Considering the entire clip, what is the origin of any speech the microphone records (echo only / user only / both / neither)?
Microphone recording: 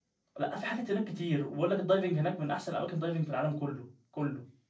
user only